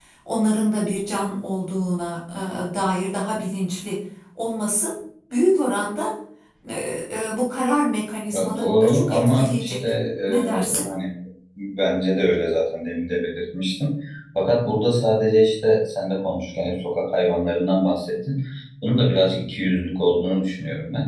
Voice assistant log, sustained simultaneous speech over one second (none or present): present